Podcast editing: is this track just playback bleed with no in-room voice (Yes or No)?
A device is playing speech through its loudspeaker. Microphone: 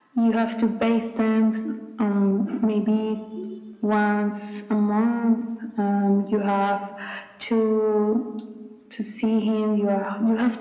Yes